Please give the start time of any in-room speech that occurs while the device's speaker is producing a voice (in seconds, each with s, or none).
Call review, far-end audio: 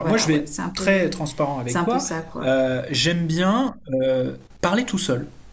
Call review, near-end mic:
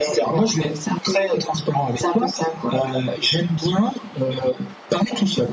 none